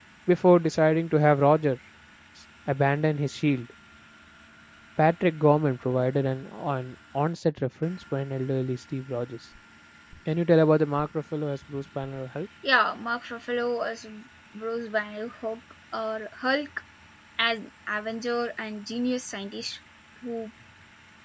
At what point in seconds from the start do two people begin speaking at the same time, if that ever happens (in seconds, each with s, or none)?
none